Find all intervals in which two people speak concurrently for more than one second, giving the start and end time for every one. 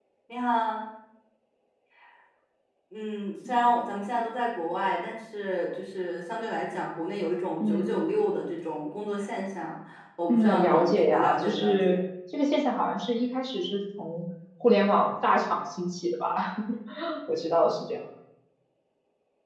10.3-12.0

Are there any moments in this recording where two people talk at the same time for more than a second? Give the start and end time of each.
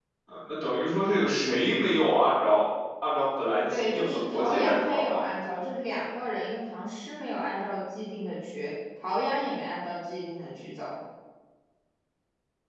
3.7-5.2

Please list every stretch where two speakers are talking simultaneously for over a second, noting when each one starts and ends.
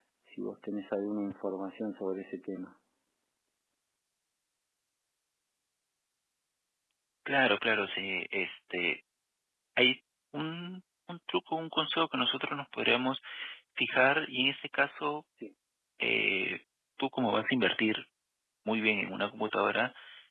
none

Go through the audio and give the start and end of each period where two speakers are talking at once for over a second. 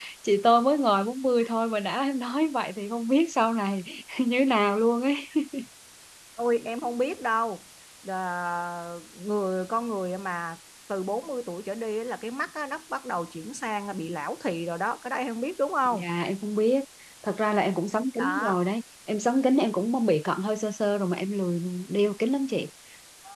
none

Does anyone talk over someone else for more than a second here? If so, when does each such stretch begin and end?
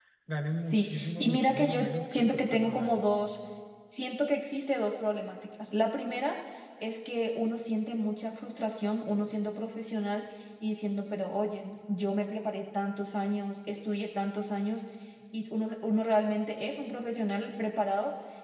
0.5-3.0

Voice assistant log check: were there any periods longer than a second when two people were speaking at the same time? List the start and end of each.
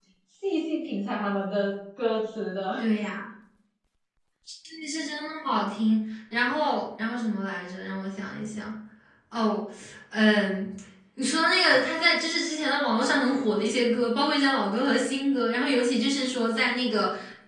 none

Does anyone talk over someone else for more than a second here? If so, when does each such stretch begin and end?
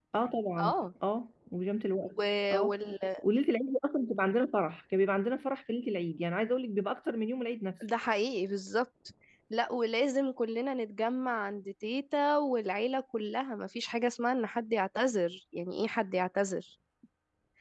none

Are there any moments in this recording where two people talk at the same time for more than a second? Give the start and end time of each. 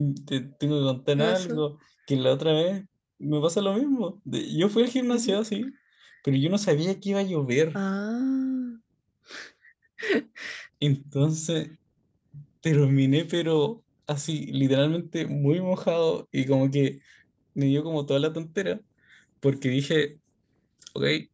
none

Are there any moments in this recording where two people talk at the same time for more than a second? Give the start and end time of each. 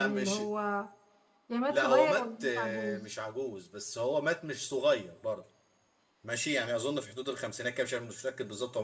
1.7-3.0

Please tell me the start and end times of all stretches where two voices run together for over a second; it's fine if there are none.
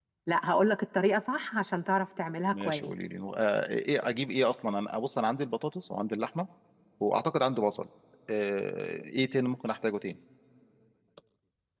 none

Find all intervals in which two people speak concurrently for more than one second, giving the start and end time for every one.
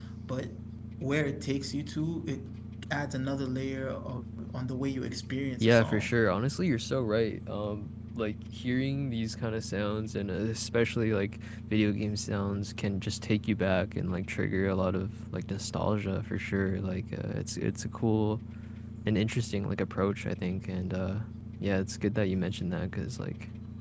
none

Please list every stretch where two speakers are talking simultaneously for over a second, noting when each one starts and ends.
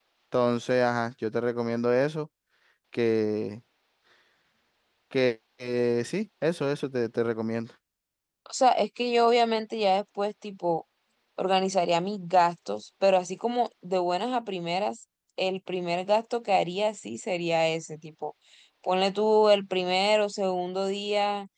none

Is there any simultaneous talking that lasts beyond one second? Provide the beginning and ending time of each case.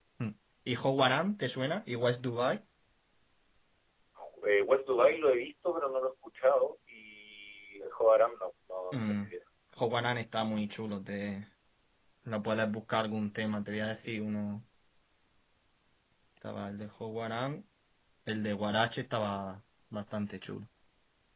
none

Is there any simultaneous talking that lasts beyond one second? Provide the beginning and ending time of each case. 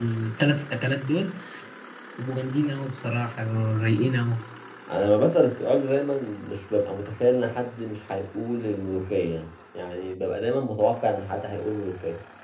none

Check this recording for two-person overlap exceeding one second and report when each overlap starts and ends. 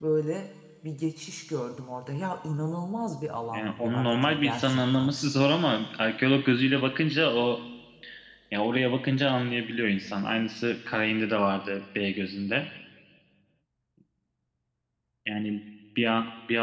3.5-5.1

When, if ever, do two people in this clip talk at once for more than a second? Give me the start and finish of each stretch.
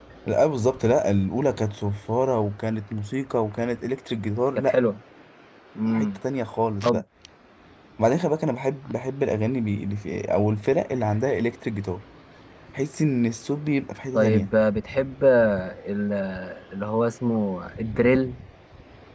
none

